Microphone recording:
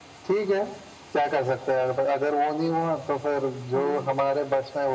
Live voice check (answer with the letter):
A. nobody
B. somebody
B